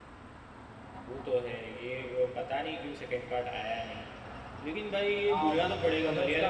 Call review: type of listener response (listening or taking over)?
taking over